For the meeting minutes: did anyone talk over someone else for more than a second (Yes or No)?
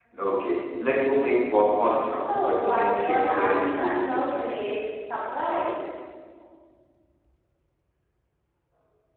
Yes